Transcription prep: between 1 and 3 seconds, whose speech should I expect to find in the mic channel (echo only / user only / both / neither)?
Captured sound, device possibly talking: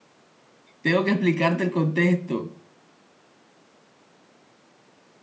user only